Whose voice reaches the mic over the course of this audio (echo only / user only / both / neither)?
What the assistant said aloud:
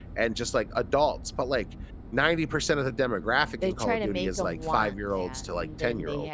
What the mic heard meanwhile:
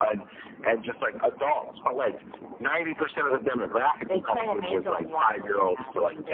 echo only